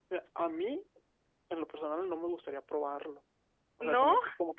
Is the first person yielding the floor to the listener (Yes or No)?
No